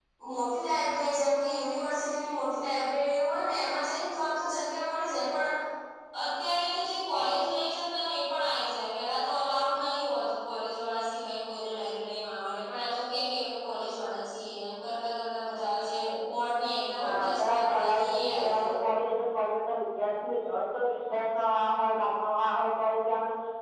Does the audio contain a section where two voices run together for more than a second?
Yes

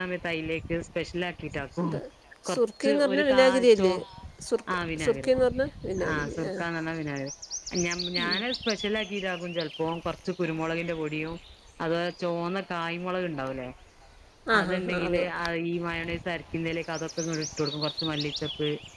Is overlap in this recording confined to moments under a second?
No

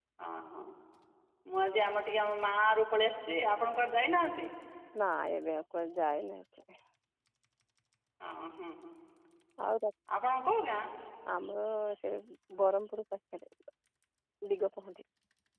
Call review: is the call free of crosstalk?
Yes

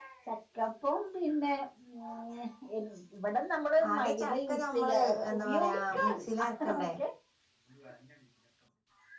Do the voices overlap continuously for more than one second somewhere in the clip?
Yes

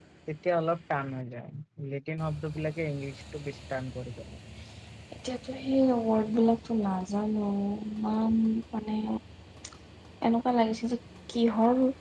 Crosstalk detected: No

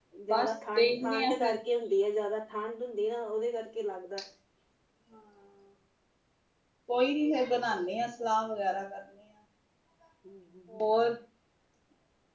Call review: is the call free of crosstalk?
No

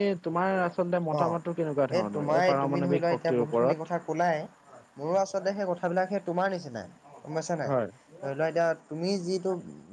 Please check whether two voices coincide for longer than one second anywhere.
Yes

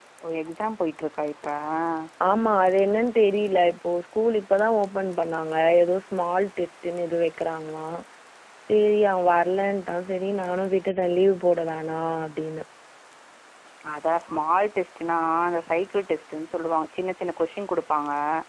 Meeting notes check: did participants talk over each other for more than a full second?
No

